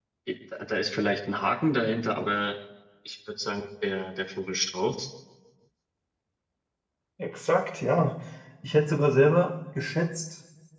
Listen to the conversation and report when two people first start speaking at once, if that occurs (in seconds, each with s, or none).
none